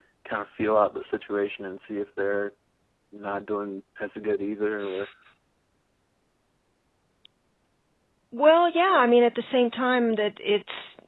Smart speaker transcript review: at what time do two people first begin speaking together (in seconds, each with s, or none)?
none